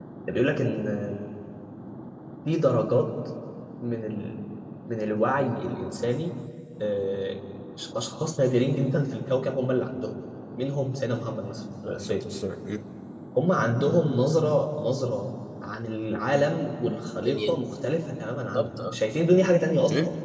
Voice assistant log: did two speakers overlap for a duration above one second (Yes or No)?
No